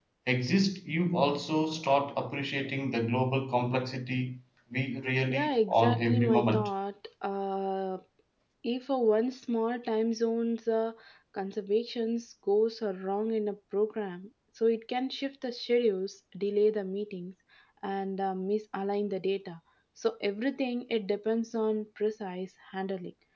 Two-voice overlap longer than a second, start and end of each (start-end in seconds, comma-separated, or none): 5.3-6.7